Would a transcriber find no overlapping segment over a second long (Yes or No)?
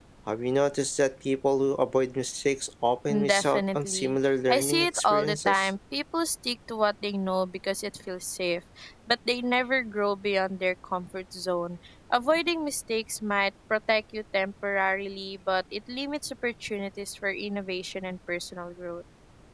No